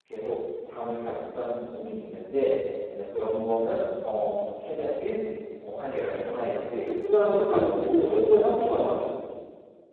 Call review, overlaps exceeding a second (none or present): present